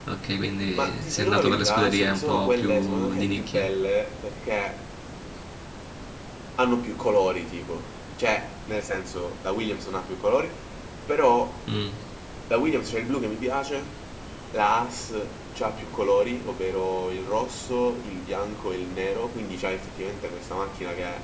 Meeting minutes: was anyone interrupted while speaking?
Yes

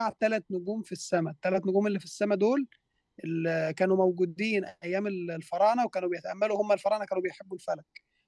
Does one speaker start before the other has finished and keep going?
No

